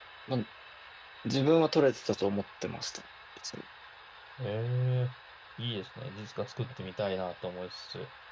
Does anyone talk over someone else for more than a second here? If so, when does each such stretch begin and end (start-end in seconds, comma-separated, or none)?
none